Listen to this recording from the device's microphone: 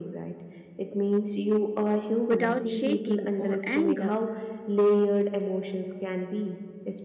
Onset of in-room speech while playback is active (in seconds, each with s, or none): 2.3 s